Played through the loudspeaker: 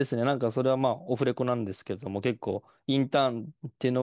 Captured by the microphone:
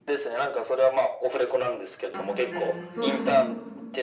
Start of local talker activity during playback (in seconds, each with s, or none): 2.1 s